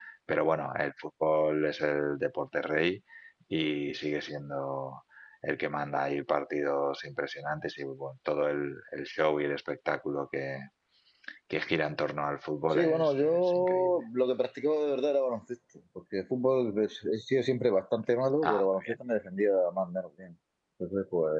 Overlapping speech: Yes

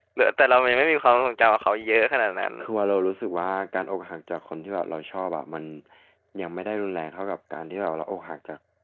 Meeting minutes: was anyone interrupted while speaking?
No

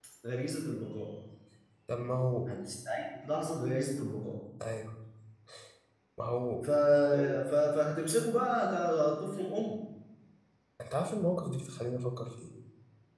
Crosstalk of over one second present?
No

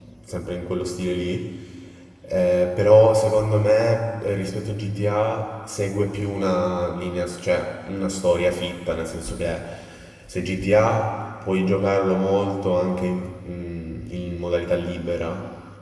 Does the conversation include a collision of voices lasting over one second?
No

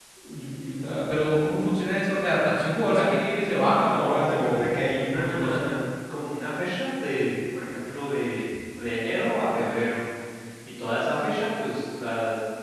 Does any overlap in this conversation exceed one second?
Yes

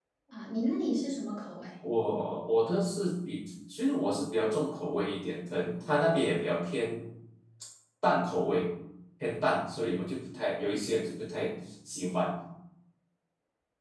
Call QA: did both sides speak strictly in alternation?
Yes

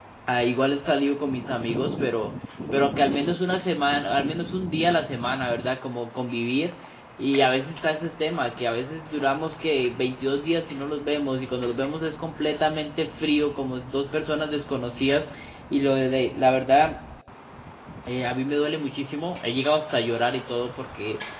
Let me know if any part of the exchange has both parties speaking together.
No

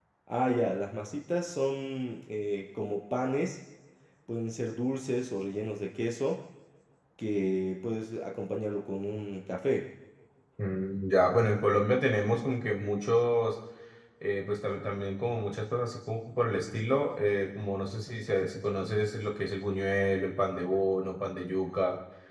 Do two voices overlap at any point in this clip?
No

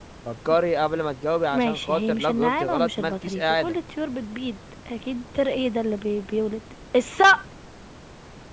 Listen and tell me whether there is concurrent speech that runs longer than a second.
Yes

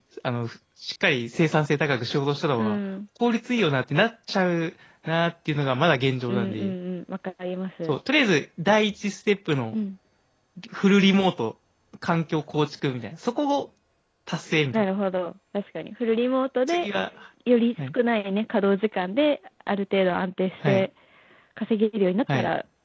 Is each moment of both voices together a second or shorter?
Yes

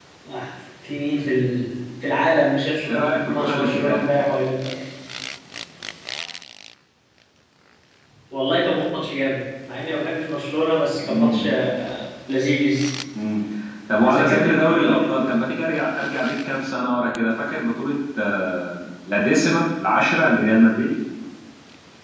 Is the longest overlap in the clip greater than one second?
Yes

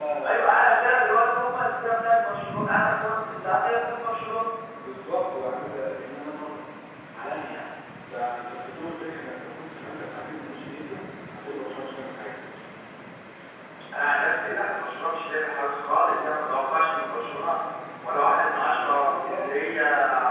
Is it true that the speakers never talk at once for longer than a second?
Yes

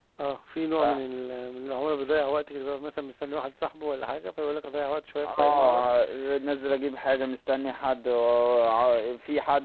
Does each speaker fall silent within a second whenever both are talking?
Yes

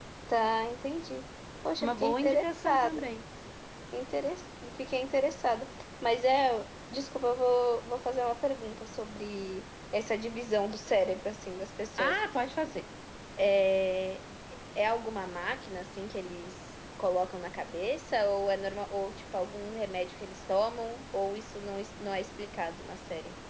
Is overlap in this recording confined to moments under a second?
No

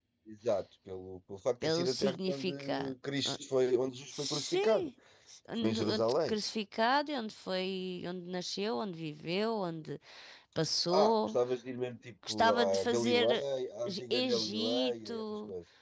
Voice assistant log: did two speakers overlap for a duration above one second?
Yes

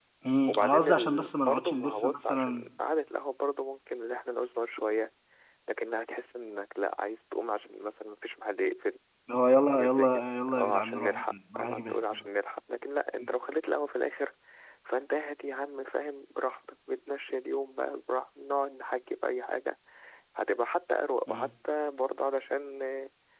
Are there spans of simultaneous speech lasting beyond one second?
Yes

